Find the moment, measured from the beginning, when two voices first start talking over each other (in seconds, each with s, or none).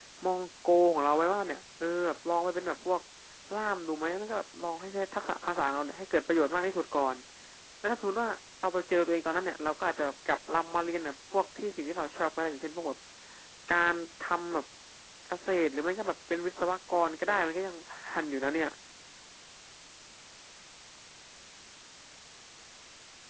none